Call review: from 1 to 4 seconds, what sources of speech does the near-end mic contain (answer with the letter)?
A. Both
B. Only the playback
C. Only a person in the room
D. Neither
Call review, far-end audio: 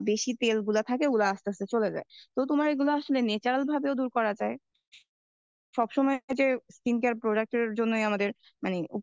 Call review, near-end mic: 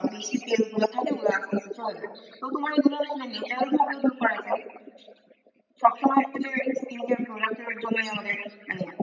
B